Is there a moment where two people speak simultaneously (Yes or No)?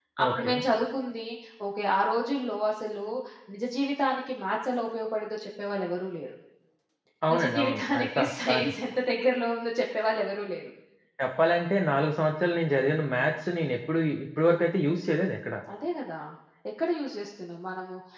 Yes